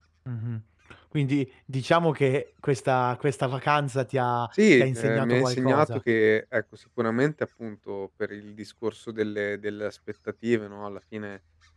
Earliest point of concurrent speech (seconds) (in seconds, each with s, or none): 4.5 s